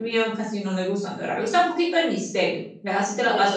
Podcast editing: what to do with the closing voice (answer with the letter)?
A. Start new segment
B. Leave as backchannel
A